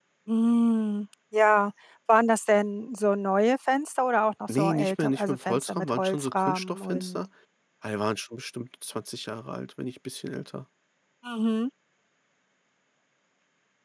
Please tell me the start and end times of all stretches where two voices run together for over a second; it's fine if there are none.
4.5-7.2

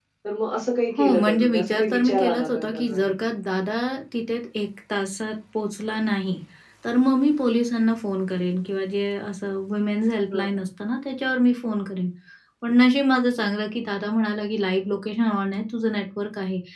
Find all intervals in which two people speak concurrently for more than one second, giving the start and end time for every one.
1.0-3.3

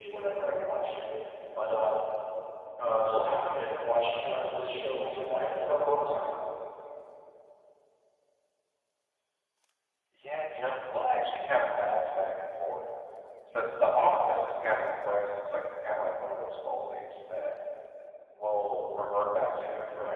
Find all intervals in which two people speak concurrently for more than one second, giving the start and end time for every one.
none

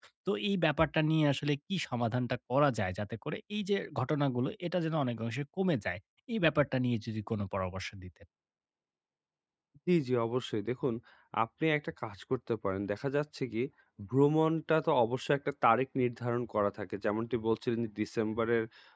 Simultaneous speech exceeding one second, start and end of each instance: none

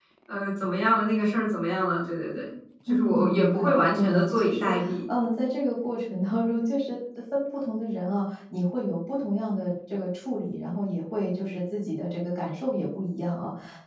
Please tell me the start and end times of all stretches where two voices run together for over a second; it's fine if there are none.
2.9-4.7

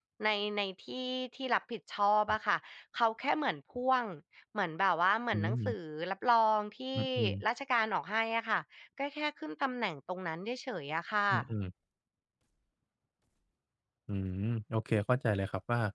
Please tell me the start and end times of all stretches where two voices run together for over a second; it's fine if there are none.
none

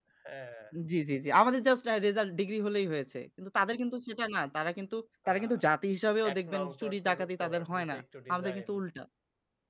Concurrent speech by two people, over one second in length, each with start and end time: 6.3-8.0

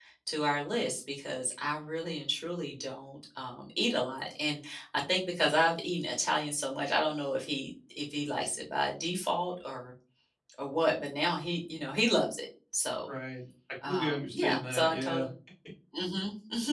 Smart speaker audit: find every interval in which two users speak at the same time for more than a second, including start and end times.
13.9-15.3

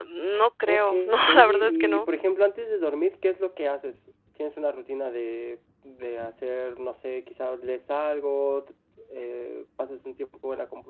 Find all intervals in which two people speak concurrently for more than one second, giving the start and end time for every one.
0.7-2.1

